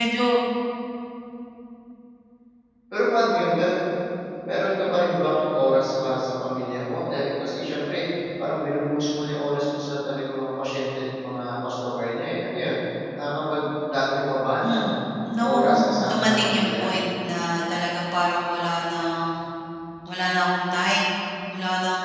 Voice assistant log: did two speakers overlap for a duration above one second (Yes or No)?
Yes